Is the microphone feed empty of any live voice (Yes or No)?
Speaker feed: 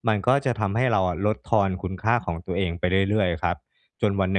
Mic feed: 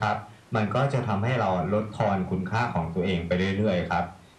Yes